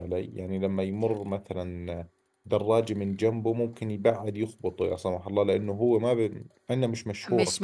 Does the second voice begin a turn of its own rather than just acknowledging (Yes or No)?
Yes